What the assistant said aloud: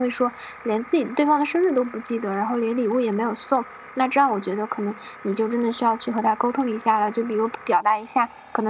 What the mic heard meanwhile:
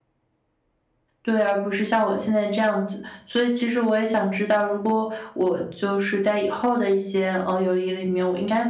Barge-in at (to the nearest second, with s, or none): 1 s